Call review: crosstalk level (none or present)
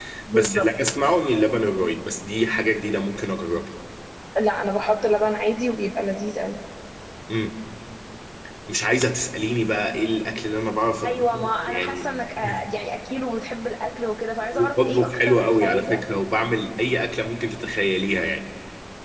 present